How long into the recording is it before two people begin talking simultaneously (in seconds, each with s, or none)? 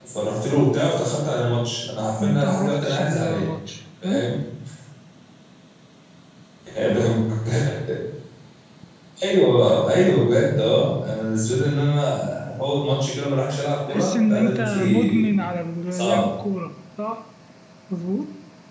2.2 s